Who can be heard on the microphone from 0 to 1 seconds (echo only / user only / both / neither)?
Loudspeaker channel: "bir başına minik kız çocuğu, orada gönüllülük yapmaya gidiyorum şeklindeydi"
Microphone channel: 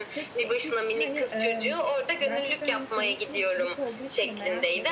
both